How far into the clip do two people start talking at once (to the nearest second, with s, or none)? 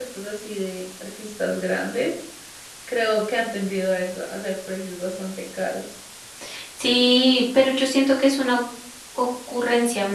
none